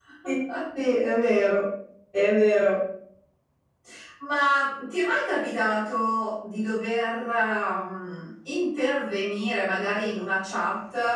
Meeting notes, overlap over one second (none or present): none